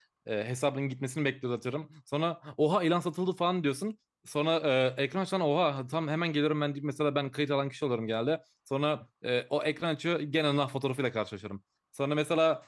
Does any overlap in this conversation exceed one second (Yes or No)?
No